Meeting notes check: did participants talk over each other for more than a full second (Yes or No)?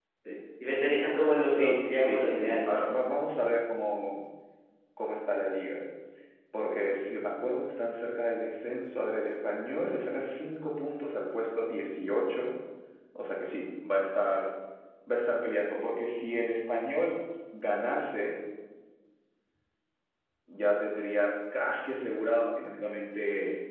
Yes